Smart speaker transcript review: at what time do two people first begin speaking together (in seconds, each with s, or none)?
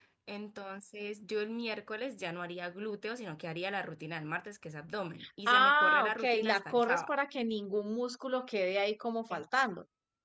5.5 s